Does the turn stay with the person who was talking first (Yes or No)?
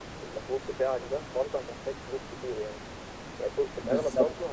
Yes